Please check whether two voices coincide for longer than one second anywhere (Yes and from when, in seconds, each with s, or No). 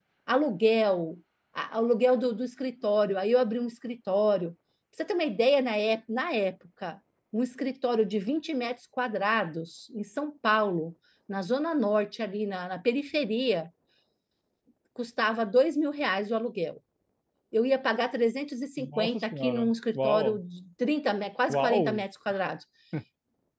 Yes, from 18.8 s